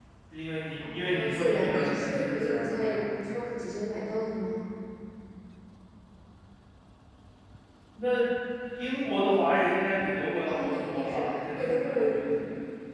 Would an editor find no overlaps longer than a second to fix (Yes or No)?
No